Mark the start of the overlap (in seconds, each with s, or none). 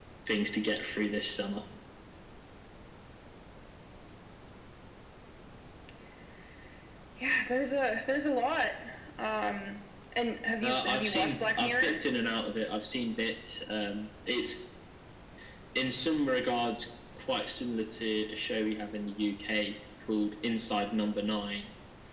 10.6 s